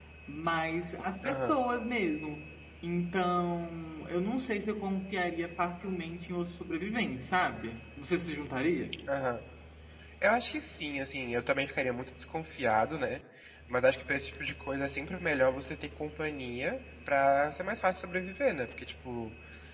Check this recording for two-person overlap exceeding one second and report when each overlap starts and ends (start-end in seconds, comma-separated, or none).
none